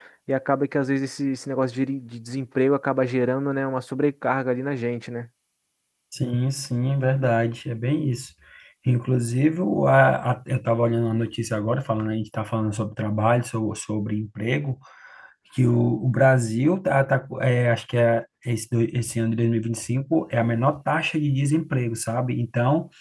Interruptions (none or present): none